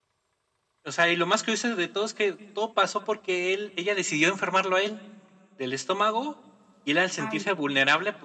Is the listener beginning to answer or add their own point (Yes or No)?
No